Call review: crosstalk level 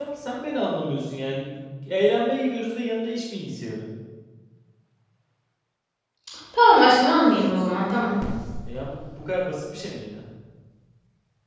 none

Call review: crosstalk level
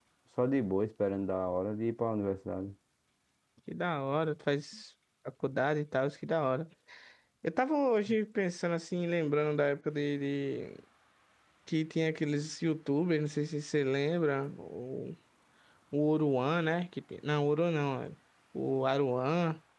none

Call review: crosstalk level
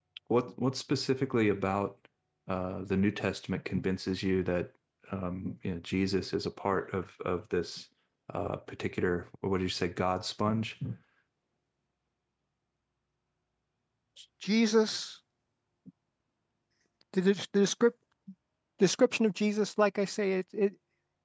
none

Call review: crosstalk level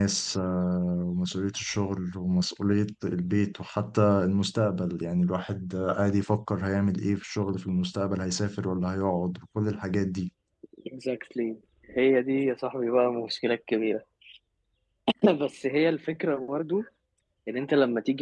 none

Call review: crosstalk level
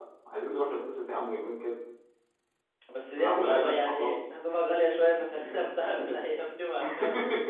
present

